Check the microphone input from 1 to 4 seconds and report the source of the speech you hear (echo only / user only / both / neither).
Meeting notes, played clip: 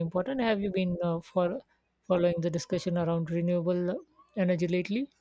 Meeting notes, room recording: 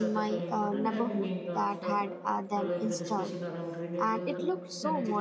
both